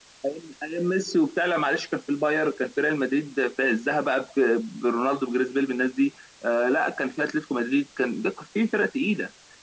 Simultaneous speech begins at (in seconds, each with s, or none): none